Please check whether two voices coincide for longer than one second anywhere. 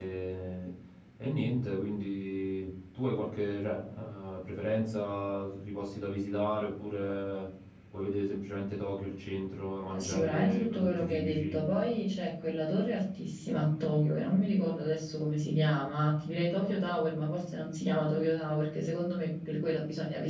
Yes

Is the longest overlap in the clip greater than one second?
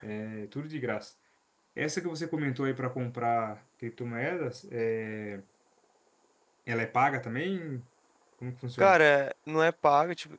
No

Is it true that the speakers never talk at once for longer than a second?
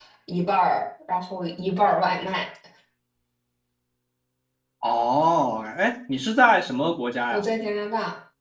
Yes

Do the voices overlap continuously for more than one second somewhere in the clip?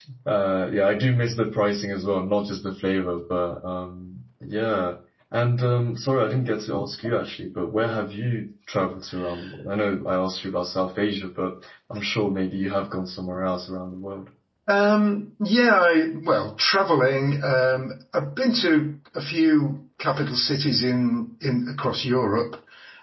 No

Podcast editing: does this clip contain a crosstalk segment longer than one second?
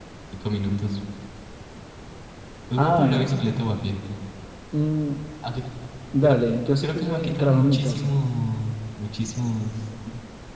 Yes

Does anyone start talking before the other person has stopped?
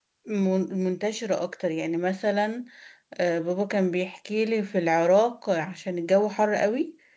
No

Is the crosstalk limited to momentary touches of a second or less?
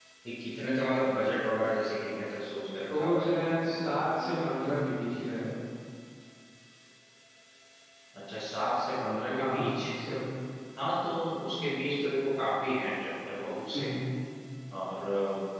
No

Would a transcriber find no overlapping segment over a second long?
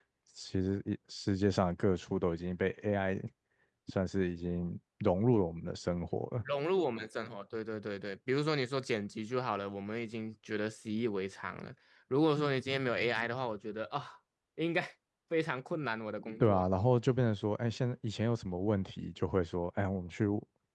Yes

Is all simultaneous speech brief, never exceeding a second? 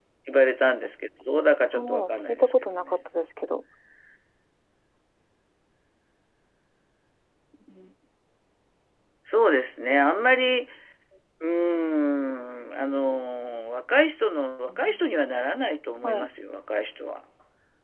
No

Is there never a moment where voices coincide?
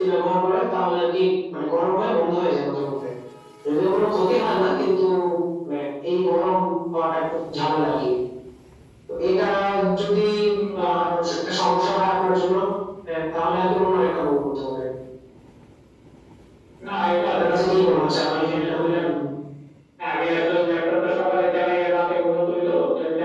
No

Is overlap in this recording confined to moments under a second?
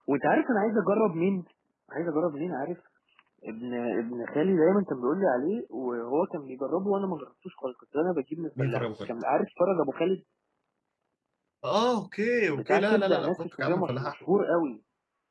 No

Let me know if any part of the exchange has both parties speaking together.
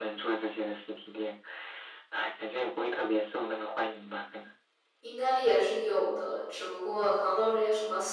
No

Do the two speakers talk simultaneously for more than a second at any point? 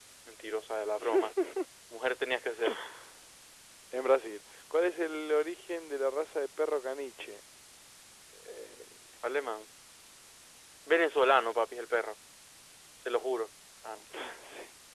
No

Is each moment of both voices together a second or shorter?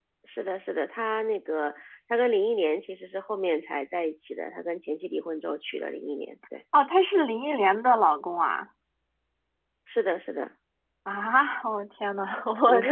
Yes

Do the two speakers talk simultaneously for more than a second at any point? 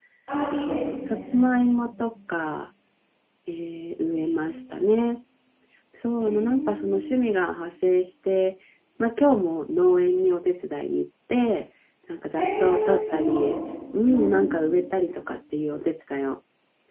Yes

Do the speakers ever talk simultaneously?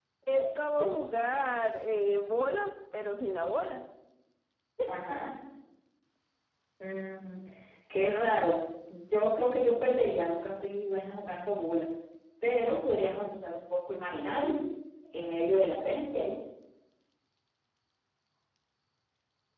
No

